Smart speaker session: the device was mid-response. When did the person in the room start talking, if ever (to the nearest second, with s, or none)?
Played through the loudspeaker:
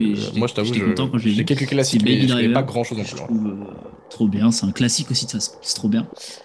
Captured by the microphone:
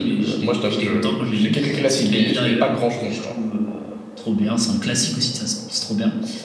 none